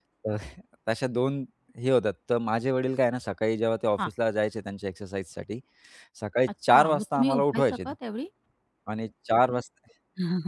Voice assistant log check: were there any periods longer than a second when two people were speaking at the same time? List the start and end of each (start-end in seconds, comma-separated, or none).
6.7-7.9